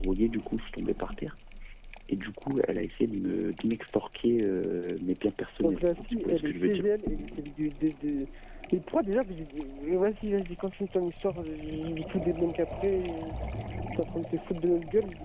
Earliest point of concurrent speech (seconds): 5.6 s

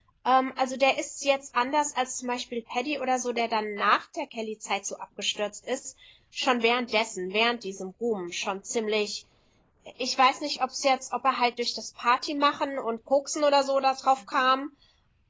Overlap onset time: none

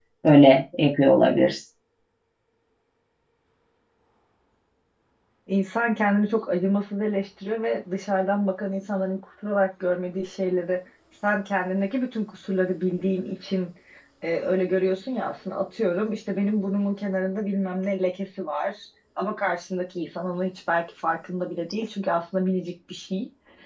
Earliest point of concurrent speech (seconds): none

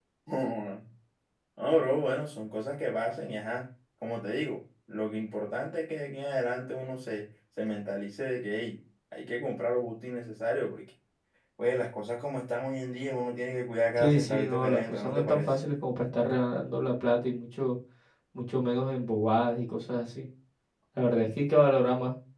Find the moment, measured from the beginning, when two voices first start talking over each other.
13.9 s

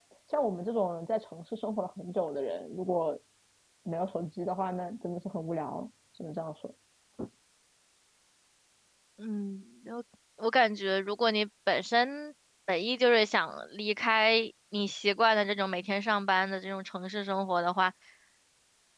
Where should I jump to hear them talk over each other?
none

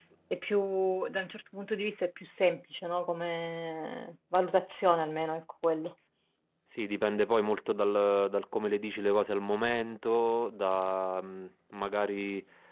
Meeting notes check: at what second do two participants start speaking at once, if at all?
none

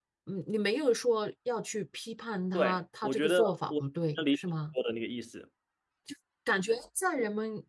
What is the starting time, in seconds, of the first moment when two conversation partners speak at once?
2.5 s

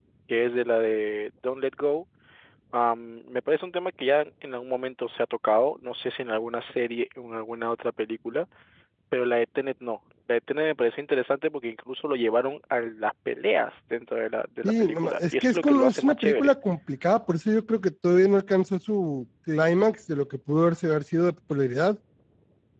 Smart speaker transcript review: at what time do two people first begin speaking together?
14.6 s

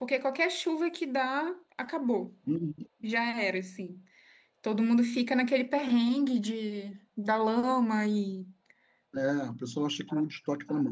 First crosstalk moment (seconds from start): none

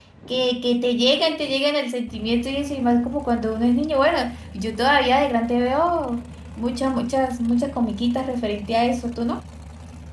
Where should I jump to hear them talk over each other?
none

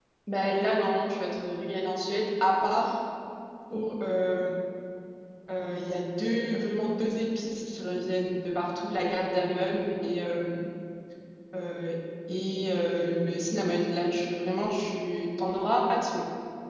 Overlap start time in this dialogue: none

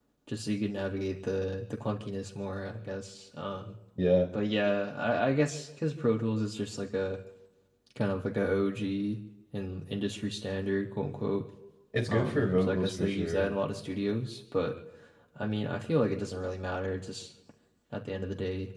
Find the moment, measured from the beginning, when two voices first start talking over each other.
12.1 s

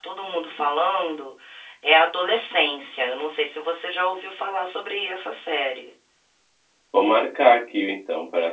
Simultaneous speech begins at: none

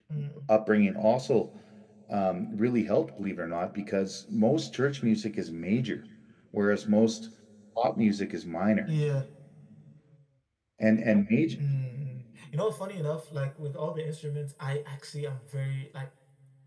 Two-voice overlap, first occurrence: none

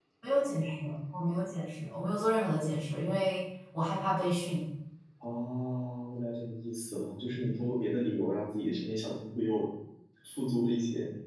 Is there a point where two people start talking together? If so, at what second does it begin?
none

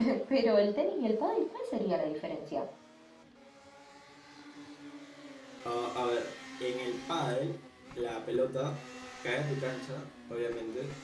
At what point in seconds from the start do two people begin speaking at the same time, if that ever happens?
none

